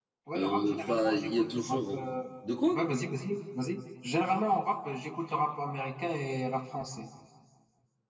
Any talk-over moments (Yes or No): Yes